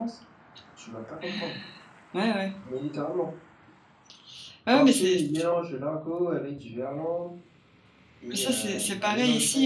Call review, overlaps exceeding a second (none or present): present